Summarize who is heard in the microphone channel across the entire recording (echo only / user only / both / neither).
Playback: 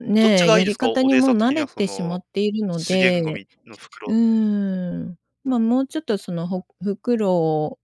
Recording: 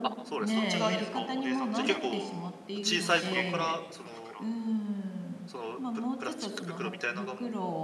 both